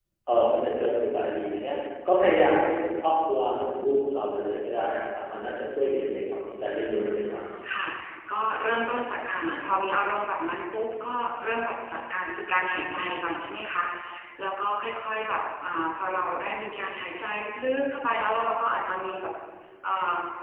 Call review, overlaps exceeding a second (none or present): none